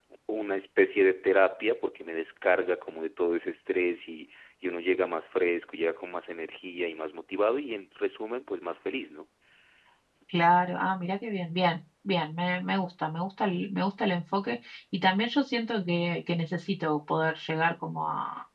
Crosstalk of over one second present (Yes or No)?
No